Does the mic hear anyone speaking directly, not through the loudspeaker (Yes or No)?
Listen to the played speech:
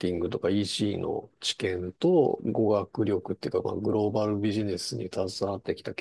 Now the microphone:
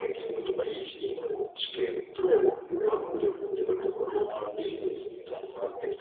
No